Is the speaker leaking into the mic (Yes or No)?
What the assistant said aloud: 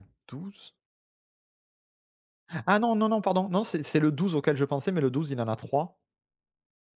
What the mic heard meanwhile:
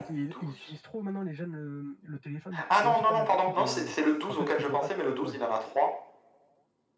Yes